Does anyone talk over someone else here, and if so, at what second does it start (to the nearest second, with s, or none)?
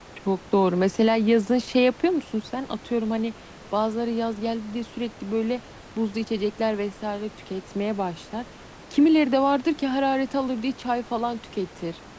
none